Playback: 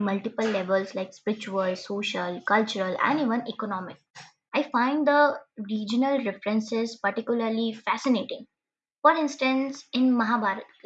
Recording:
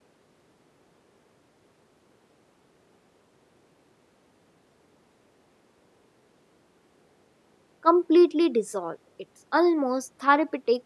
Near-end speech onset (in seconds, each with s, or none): 7.8 s